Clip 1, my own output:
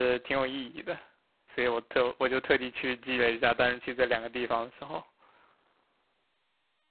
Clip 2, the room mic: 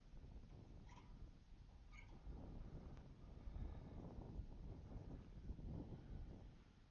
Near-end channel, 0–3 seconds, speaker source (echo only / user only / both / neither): neither